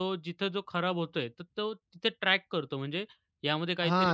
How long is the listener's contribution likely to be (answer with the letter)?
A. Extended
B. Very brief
A